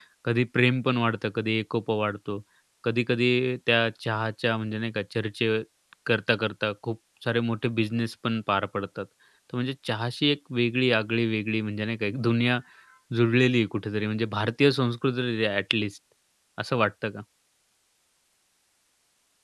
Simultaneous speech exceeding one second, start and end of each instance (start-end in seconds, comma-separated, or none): none